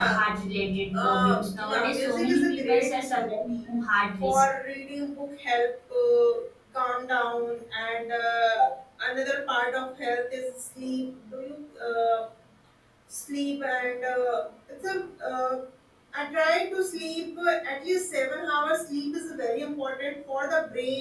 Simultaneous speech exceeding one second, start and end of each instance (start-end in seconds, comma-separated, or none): 0.9-3.5